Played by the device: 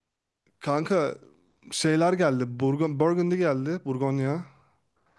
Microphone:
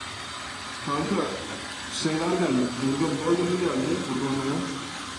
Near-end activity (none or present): none